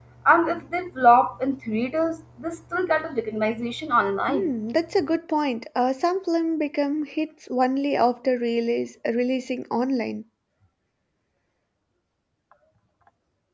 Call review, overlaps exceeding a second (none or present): none